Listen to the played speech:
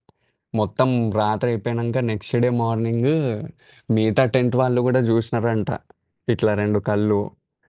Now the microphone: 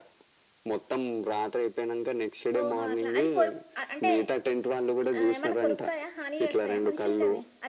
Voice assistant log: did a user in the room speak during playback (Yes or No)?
Yes